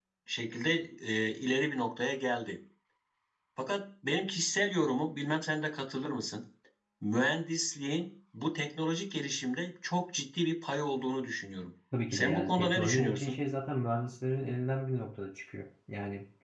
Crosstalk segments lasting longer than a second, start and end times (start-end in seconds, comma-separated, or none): 12.1-13.4